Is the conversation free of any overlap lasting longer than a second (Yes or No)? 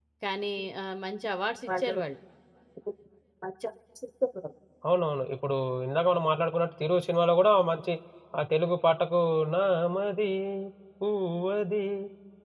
Yes